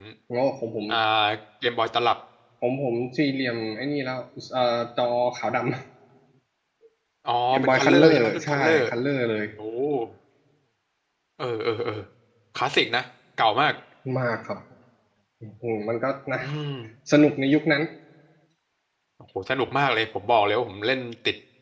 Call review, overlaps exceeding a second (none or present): present